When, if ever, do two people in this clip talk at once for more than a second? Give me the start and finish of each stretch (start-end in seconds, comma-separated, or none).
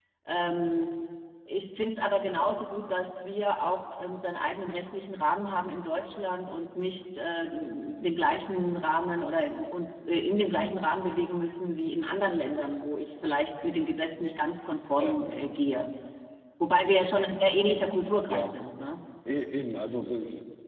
none